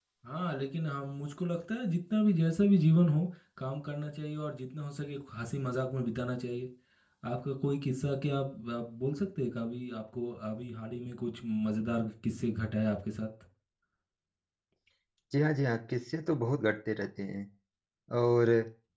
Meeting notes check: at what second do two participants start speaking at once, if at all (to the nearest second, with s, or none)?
none